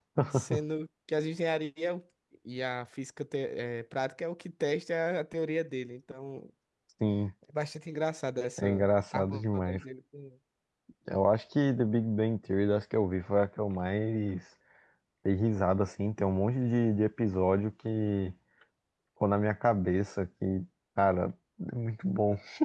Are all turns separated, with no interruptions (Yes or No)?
No